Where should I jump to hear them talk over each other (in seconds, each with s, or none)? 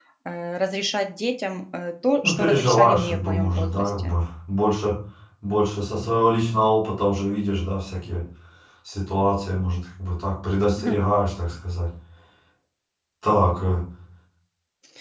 2.2 s